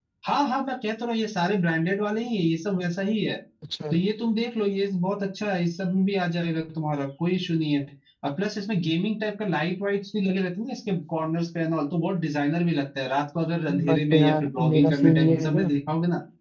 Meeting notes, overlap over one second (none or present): present